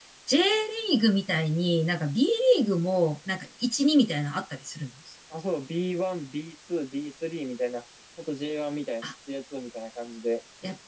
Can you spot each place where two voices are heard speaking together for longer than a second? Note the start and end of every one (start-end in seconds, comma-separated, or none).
none